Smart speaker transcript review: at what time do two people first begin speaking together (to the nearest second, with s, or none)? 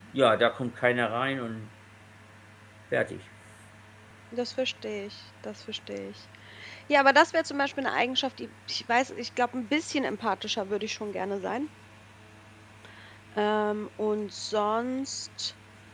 none